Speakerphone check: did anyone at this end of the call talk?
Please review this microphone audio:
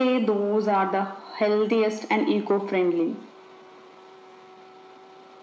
No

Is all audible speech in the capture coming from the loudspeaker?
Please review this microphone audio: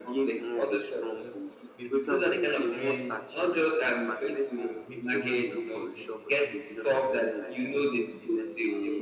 No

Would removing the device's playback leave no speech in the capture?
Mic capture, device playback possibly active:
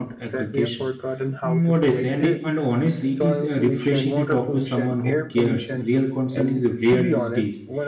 No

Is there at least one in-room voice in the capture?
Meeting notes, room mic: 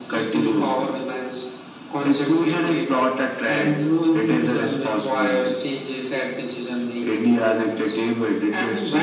No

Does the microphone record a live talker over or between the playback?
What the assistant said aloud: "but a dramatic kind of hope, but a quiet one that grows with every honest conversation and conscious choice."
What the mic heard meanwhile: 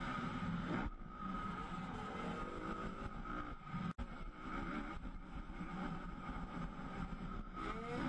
No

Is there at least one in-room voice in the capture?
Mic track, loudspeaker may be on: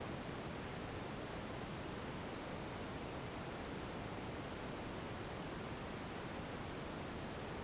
No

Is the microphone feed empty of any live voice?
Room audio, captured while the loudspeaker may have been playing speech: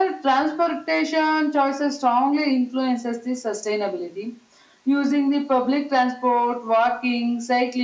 Yes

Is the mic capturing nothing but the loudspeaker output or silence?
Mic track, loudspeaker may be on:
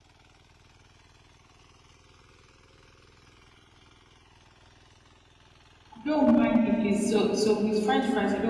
No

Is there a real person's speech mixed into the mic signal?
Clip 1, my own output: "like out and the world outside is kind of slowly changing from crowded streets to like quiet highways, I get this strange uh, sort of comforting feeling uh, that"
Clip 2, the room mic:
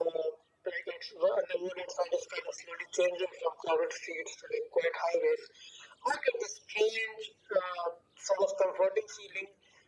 No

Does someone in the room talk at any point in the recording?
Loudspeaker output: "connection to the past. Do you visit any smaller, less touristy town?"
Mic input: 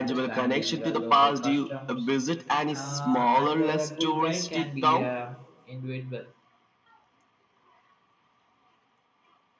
Yes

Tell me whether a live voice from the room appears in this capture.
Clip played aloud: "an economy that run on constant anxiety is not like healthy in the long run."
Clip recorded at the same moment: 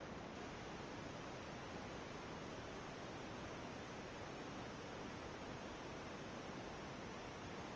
No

